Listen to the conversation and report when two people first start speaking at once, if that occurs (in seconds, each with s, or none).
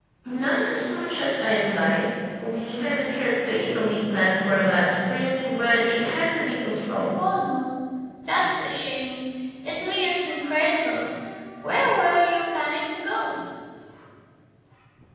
none